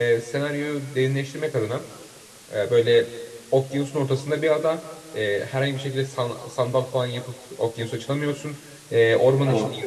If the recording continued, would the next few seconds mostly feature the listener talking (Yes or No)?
No